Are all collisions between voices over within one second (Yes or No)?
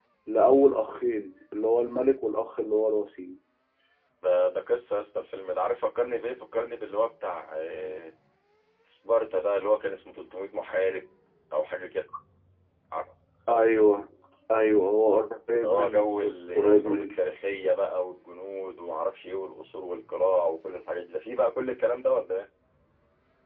No